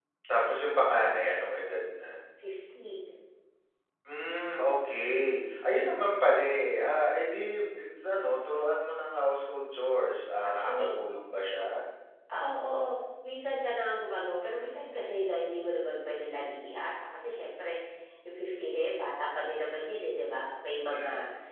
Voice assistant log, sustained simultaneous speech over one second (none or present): none